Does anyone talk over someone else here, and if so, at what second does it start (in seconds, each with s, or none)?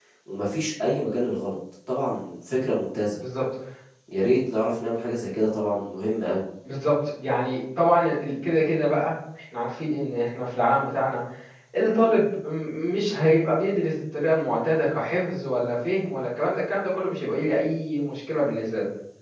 none